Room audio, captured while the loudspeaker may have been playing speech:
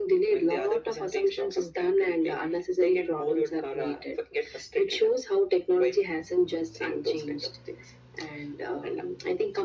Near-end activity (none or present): none